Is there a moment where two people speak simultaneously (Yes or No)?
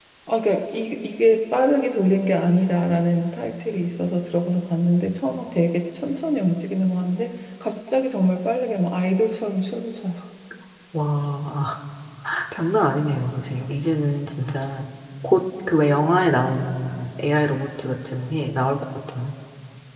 No